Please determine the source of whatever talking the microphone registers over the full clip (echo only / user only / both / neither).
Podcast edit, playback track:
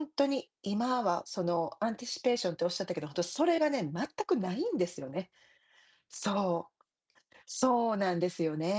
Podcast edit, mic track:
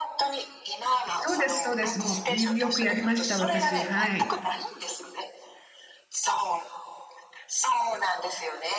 both